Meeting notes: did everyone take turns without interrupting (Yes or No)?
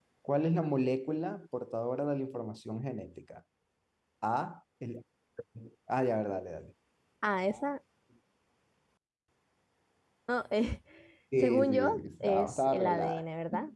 No